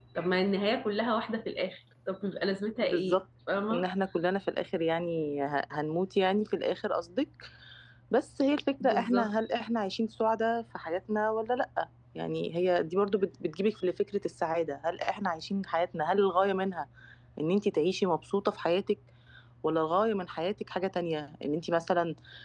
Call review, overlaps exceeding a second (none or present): none